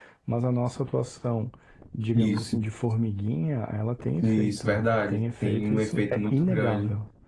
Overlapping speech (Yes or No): Yes